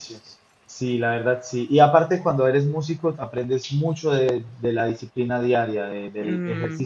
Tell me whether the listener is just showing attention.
Yes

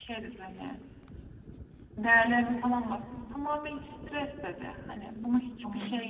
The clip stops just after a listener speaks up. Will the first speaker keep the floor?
Yes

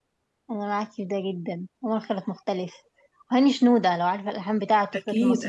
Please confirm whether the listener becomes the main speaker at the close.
Yes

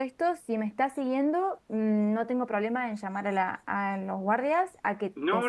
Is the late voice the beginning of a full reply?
Yes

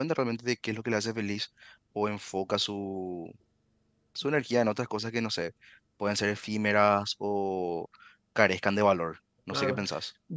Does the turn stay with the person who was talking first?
No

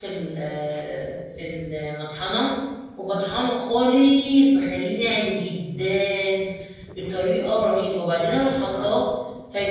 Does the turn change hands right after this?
No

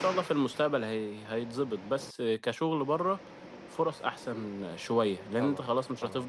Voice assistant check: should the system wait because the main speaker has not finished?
Yes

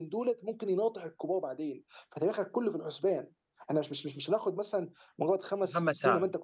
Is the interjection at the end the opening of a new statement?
No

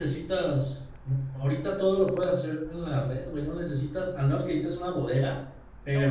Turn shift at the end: Yes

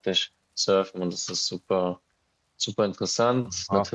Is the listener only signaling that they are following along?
Yes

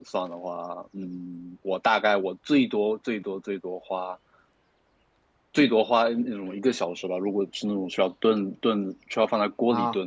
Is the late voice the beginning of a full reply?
No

